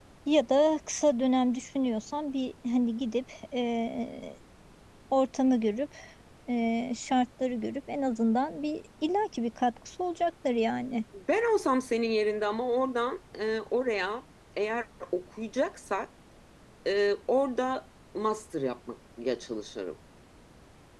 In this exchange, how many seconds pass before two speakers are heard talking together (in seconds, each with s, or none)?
none